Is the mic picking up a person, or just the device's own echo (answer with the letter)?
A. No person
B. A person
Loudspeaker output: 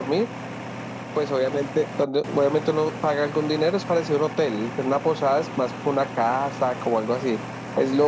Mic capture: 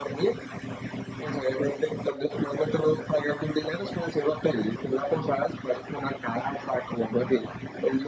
A